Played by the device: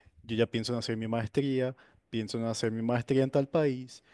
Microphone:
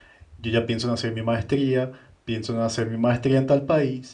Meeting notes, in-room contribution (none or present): none